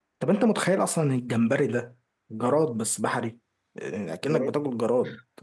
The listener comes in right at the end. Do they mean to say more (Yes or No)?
No